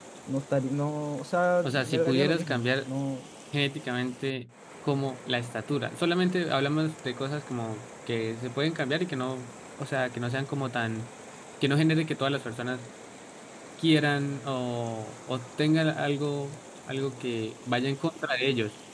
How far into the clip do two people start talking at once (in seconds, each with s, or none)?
1.6 s